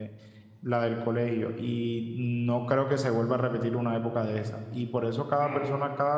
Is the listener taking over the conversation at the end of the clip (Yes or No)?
No